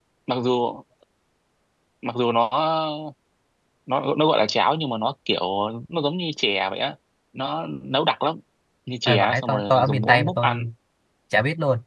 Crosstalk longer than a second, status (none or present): present